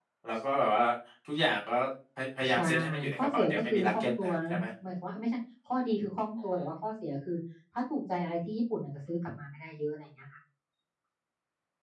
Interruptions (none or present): present